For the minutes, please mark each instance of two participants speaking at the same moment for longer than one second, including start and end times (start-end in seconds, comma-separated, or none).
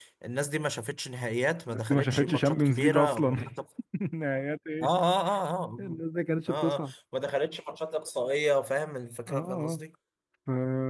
1.7-3.4